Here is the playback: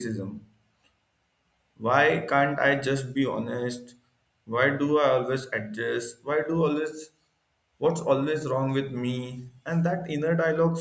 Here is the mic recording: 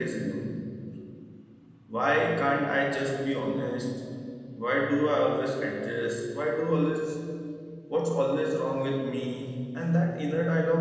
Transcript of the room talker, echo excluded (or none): none